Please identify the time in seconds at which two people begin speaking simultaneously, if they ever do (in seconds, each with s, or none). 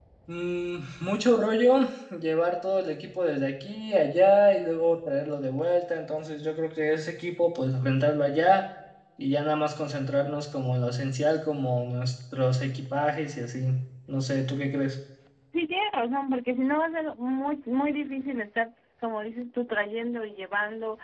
none